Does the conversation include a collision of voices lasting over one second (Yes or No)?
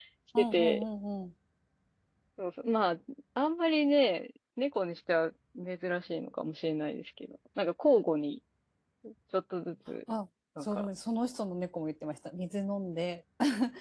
No